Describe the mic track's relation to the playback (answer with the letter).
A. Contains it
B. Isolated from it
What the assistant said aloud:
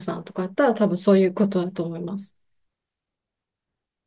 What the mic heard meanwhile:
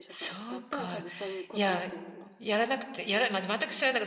A